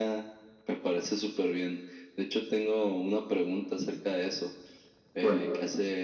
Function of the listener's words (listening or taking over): listening